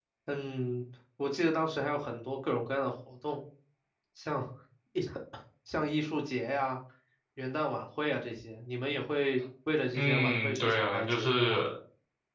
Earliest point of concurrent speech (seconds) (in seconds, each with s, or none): 9.9 s